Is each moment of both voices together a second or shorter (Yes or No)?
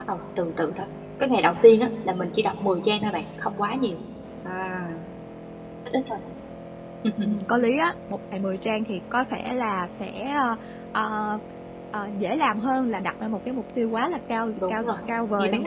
Yes